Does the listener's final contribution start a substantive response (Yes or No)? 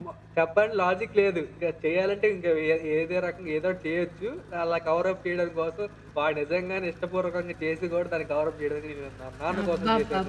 Yes